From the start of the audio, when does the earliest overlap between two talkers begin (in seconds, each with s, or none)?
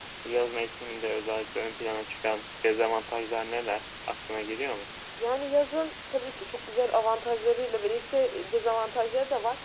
none